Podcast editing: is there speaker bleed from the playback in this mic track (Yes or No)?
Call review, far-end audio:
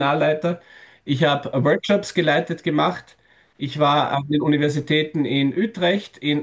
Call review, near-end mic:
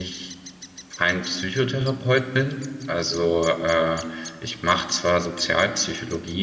No